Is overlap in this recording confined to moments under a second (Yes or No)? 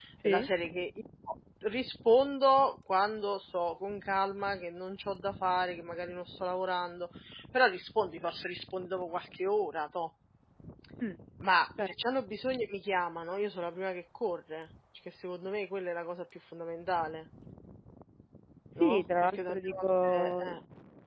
No